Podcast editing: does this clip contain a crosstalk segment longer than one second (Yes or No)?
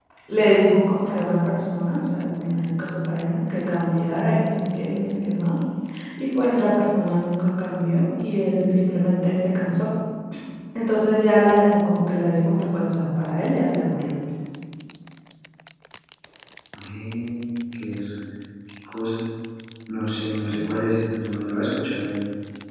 No